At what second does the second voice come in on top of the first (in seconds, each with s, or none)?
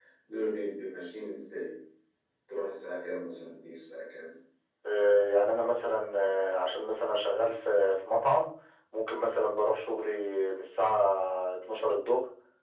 none